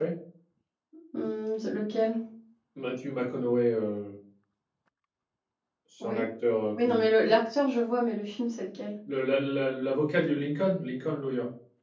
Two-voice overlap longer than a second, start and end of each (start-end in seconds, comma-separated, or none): none